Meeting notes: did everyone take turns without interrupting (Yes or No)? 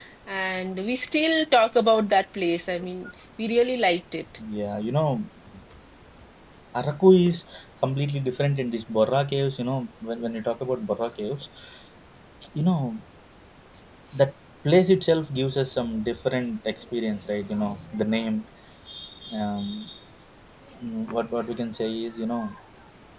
Yes